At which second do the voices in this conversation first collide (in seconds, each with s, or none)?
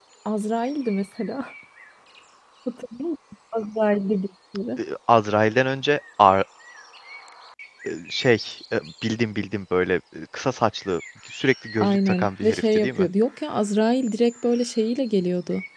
11.8 s